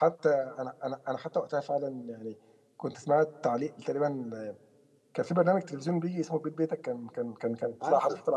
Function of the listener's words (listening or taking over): listening